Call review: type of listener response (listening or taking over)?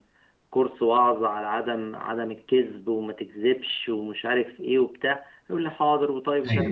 listening